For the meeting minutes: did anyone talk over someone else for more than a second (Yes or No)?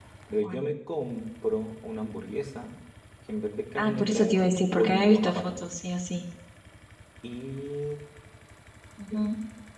Yes